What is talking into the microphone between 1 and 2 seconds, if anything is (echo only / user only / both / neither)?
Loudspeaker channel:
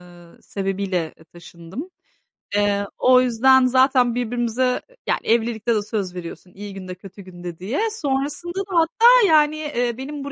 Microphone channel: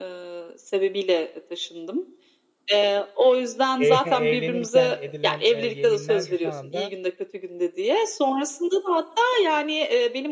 echo only